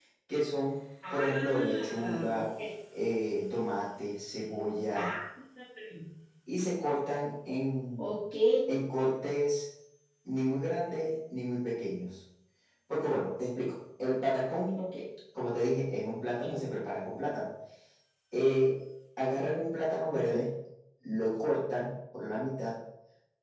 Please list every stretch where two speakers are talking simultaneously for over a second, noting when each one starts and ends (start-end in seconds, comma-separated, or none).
1.1-2.4